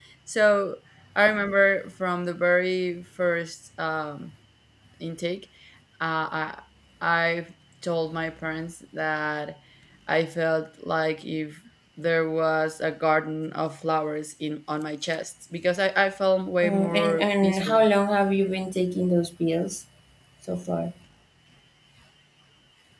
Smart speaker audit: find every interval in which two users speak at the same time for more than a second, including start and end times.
16.6-17.8

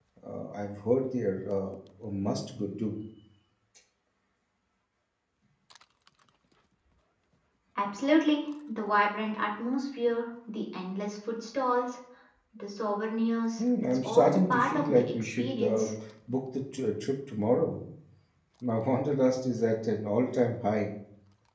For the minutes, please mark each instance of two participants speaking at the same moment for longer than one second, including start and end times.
13.6-15.9

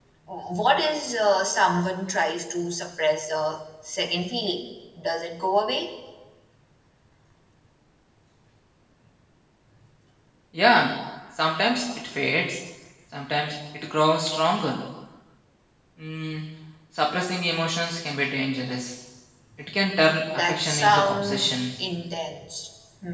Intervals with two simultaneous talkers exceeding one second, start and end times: 20.3-21.6

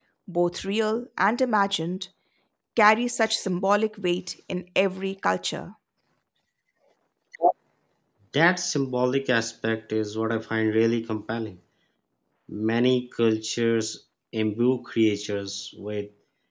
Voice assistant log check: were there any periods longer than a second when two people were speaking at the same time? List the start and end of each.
none

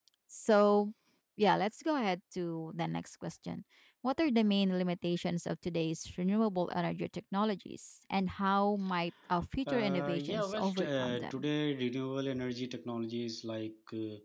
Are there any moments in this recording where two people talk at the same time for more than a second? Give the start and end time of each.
9.7-11.4

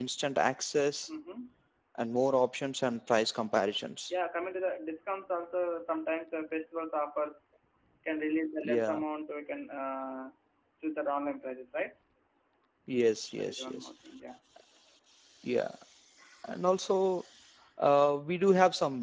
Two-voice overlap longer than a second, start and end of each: none

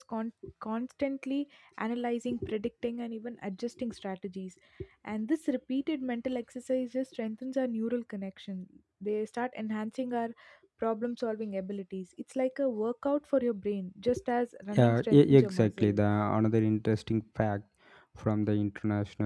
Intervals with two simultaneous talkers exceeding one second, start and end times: 14.7-16.0

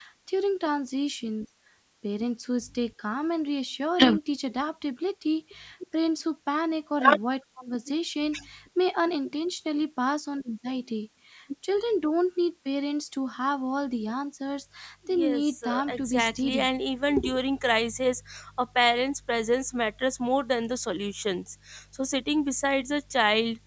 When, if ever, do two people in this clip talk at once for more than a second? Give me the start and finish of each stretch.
15.1-16.7

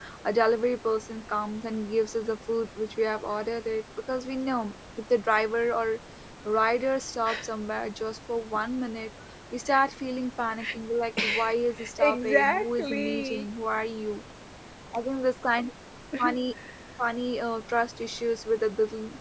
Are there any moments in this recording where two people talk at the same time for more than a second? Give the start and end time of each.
12.0-13.4

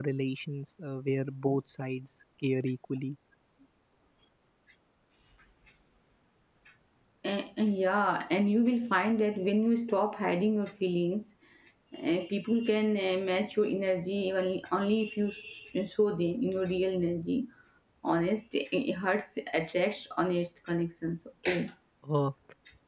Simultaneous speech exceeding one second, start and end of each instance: none

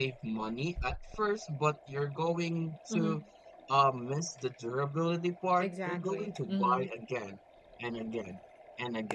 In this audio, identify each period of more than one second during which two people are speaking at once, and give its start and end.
5.6-6.9

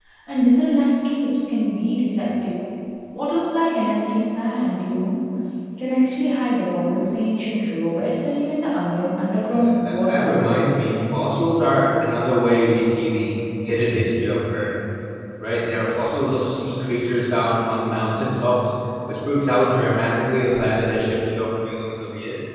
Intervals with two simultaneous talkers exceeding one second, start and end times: 9.5-10.9

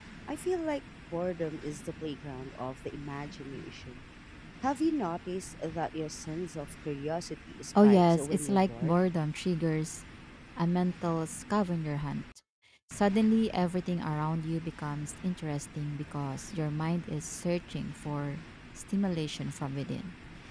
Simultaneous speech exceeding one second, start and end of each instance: 7.8-9.1

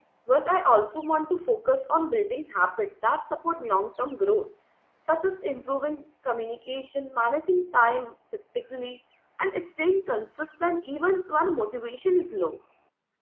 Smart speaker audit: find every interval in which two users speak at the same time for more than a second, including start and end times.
none

